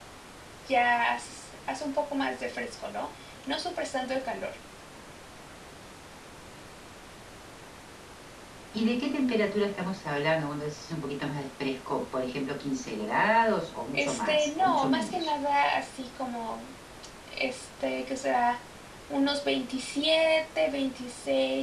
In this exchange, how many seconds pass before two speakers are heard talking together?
13.9 s

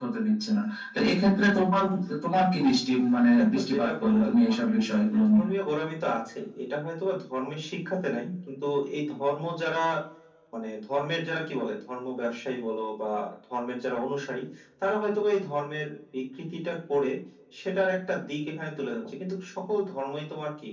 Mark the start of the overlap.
3.4 s

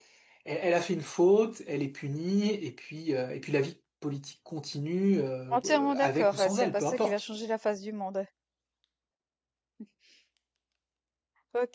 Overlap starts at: 5.5 s

